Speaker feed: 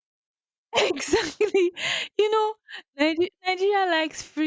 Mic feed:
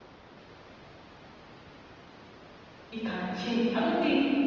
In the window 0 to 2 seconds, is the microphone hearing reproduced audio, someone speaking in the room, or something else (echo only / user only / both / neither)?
neither